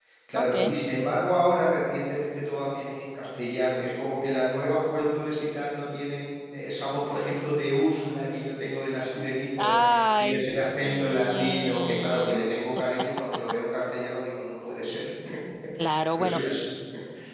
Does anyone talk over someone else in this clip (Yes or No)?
Yes